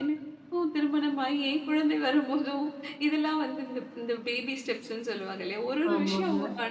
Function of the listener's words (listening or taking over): listening